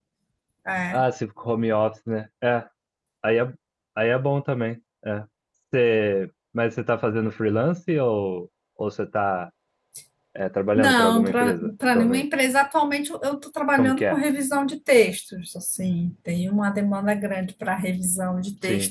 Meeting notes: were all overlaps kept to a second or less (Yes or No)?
No